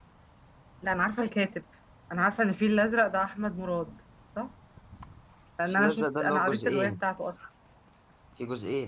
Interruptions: present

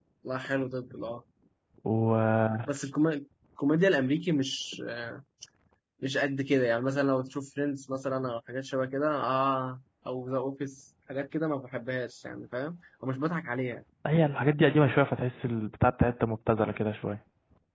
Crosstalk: none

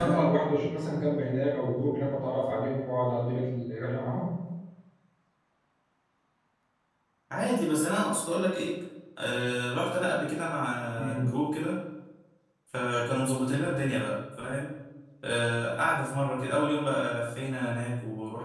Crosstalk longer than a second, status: none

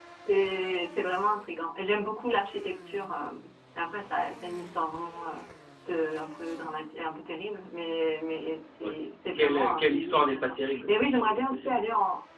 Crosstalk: present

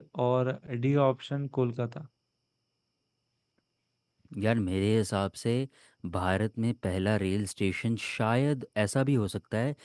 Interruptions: none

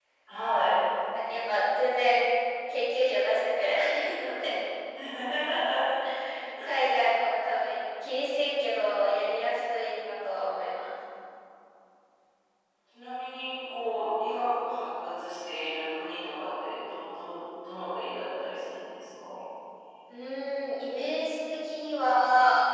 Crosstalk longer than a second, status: none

